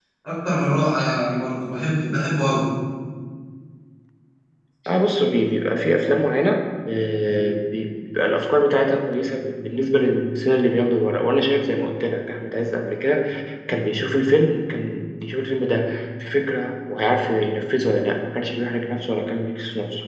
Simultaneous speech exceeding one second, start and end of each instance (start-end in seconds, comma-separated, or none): none